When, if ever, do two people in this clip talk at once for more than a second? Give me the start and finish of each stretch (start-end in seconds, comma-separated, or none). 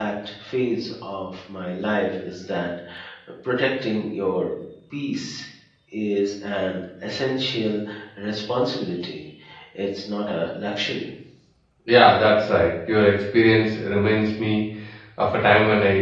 none